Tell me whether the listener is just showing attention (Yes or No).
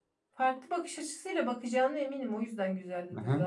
No